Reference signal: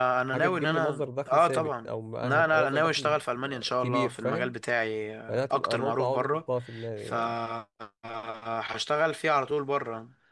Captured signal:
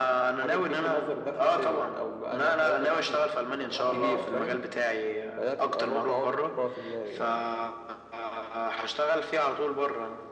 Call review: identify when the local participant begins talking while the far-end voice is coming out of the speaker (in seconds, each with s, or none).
3.5 s